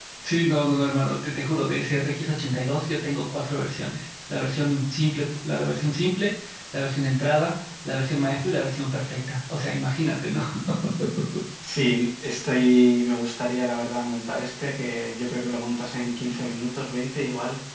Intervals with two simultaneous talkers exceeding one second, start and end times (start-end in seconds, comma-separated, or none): none